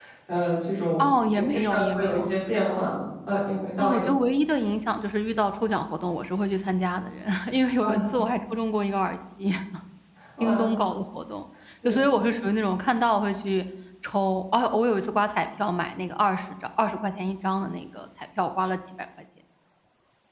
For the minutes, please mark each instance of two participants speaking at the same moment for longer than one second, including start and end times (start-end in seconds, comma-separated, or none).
1.0-2.3